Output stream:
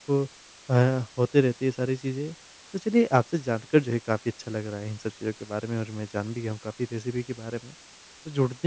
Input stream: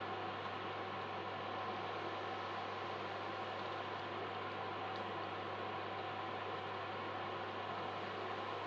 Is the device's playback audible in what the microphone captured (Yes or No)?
No